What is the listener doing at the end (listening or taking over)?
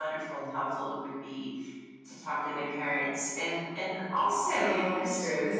taking over